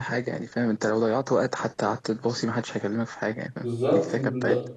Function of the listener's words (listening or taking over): taking over